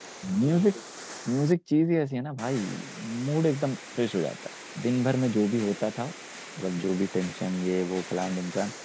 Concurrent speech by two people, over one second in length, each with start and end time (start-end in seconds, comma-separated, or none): none